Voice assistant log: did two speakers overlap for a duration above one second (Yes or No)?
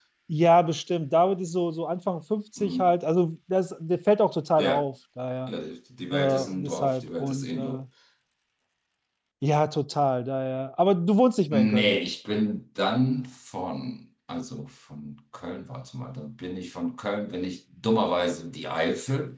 Yes